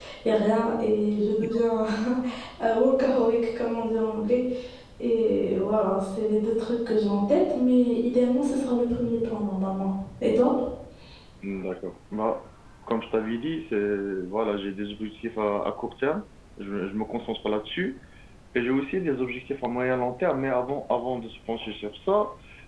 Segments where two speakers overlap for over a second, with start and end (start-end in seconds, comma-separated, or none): none